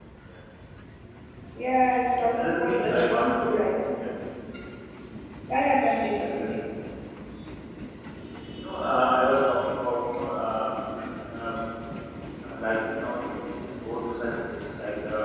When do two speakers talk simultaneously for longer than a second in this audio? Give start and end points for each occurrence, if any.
2.2-3.5

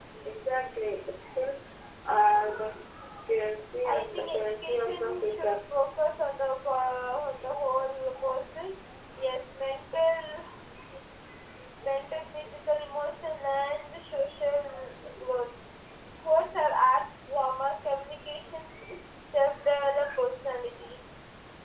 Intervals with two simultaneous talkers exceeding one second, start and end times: 3.8-5.6

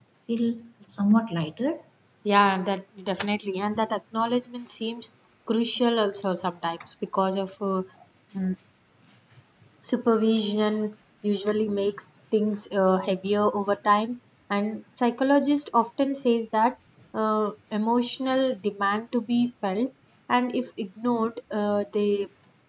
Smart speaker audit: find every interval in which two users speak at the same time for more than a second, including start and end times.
none

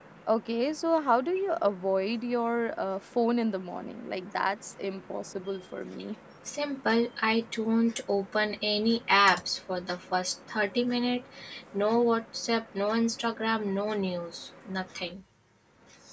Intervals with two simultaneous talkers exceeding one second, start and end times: none

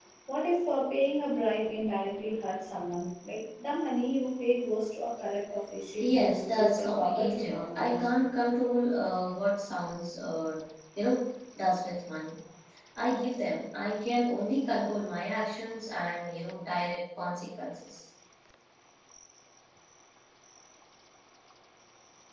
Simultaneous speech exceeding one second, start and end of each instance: 6.0-8.1

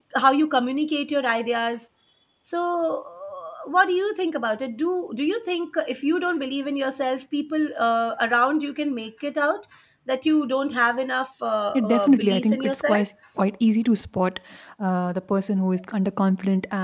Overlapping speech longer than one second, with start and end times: 11.7-13.0

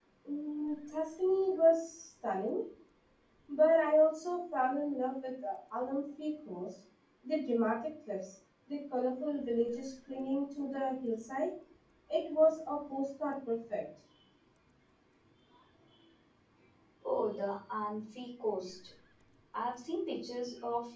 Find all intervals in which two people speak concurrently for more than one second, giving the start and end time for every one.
none

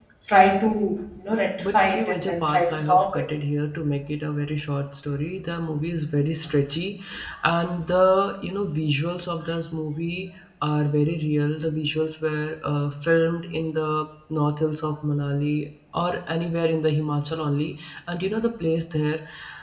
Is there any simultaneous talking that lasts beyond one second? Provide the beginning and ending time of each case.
1.6-3.3

